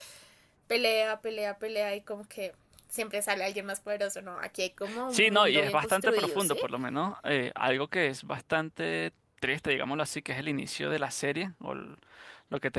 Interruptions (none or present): present